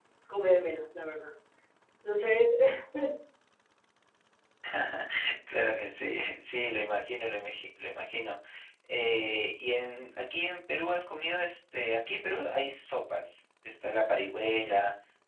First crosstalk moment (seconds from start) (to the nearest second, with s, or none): none